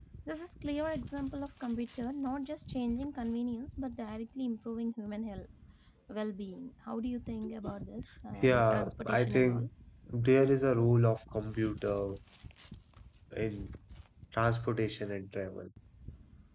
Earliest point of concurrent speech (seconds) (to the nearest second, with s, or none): 8 s